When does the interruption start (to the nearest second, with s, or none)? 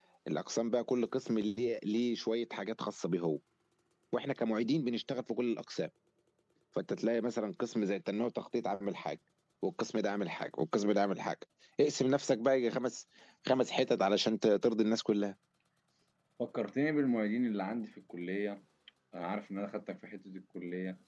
none